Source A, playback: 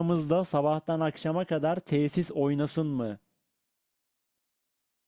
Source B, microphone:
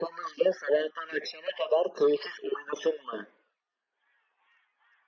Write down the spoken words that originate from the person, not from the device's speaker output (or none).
none